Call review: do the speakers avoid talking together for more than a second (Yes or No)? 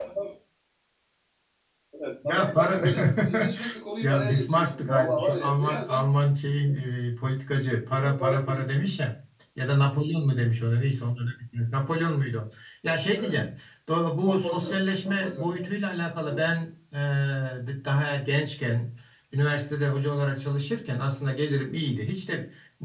No